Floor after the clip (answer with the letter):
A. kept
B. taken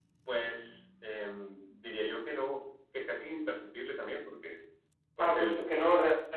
B